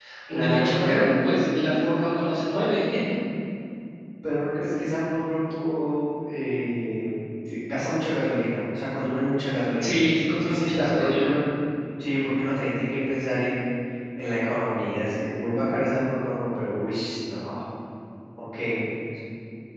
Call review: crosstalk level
present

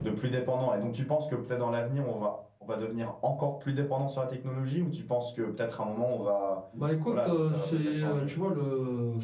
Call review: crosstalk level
present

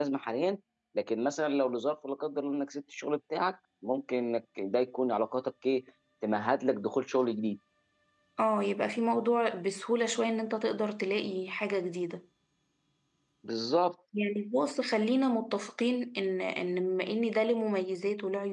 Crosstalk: none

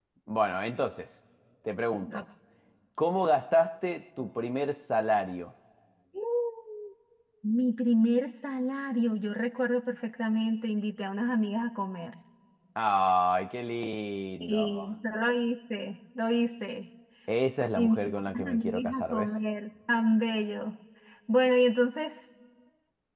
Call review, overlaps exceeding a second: present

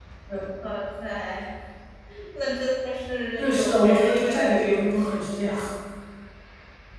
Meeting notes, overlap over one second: present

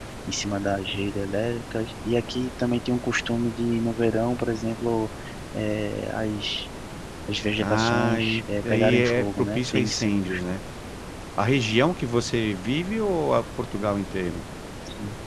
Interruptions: present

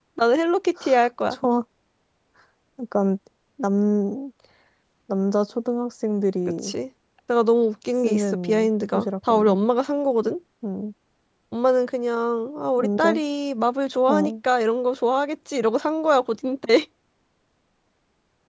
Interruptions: present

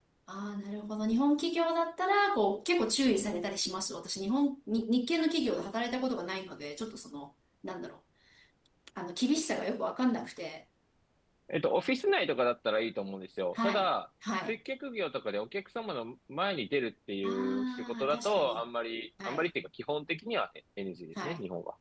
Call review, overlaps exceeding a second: present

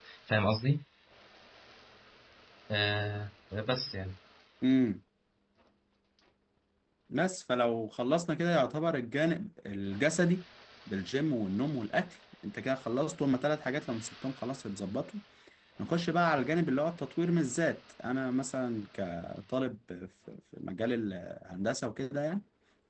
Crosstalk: none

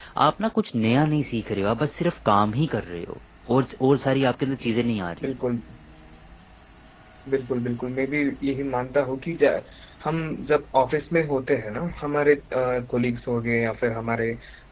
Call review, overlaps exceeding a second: none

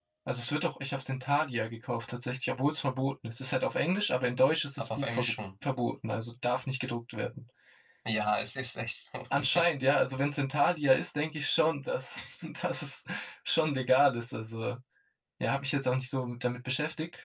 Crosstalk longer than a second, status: none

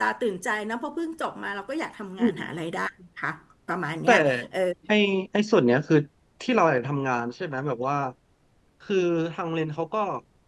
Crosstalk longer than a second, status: none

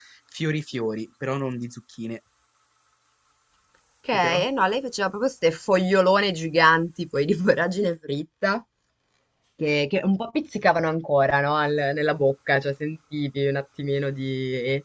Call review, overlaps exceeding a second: none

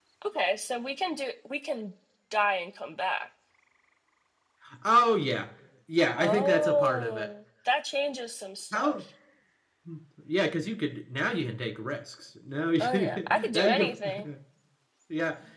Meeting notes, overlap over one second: present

